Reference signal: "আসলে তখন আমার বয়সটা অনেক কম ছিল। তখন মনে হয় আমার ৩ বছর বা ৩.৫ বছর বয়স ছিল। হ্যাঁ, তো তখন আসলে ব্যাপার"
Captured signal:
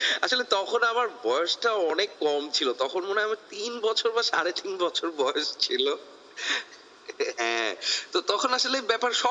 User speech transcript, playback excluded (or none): none